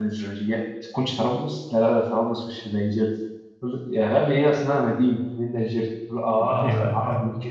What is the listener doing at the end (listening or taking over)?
listening